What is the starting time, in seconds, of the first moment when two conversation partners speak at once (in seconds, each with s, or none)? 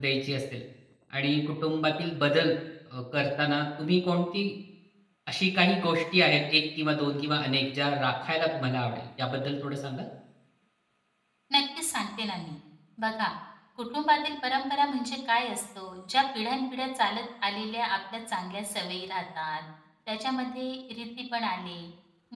none